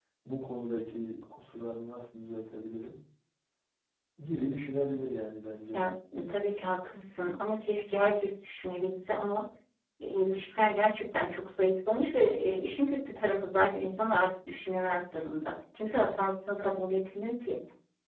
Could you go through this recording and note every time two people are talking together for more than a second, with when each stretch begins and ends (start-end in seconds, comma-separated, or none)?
none